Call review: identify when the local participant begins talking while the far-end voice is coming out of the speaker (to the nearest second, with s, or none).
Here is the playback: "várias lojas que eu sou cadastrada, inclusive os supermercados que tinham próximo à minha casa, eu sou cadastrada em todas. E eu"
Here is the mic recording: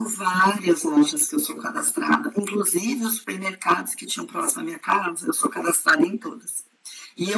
none